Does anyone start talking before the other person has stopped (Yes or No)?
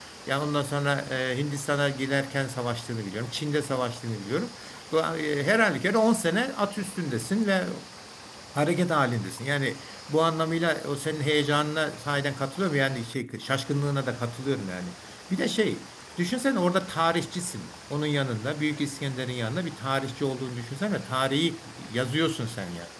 No